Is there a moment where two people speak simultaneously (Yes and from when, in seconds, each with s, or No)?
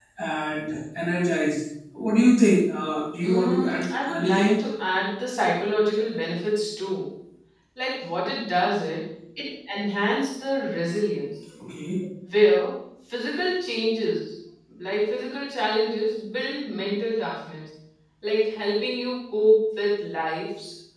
Yes, from 3.2 s